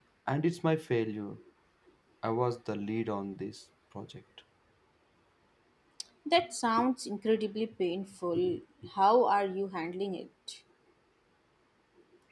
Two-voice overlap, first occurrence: none

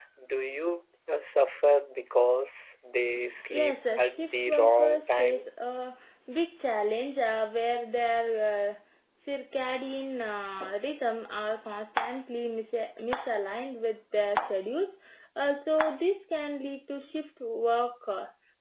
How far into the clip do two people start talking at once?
3.5 s

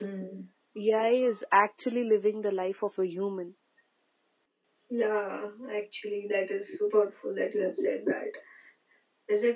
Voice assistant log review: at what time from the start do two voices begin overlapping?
none

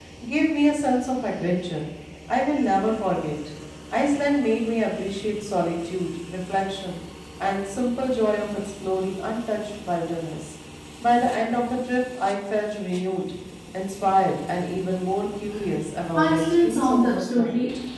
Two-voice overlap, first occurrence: 16.1 s

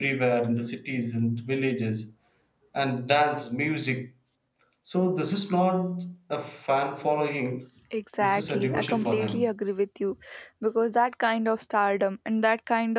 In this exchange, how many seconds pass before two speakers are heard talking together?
8.2 s

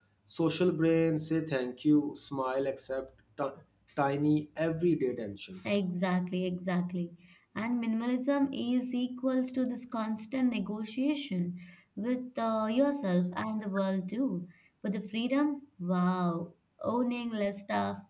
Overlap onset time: none

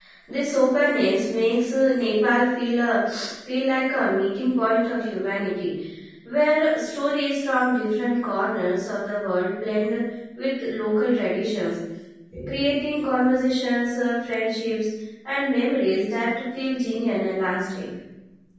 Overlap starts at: none

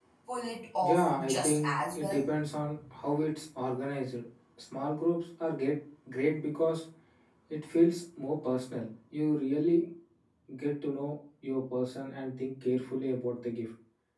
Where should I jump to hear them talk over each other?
0.8 s

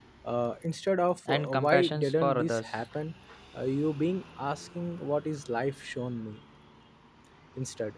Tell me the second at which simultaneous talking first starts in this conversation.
1.3 s

